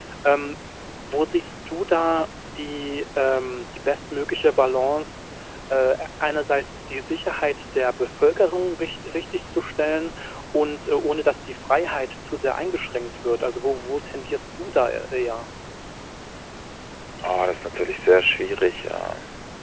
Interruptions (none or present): none